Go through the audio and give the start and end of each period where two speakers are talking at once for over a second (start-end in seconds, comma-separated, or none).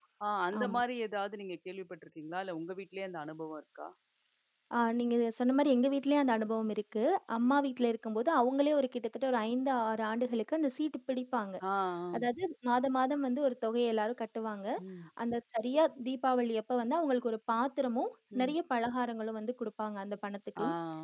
none